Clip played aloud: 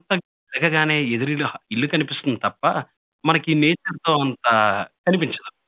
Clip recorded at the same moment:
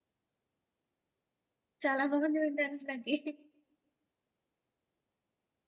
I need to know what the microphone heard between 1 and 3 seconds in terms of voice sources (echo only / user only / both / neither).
user only